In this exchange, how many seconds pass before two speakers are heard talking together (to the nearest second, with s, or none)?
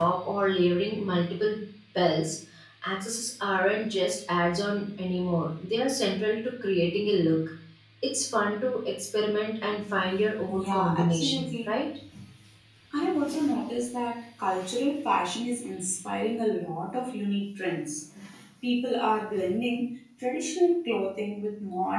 10 s